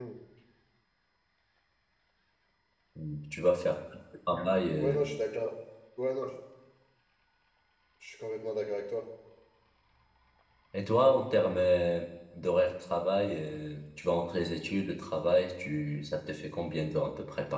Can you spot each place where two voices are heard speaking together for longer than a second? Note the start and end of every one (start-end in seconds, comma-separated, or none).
none